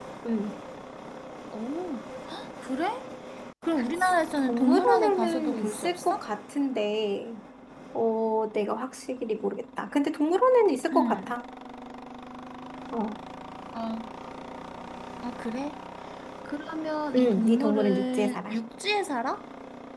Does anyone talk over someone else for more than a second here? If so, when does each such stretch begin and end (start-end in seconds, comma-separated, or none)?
4.5-6.2, 17.1-18.6